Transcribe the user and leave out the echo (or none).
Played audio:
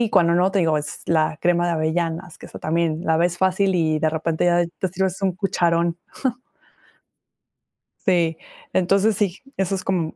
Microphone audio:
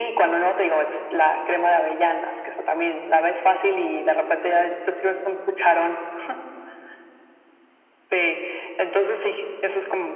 none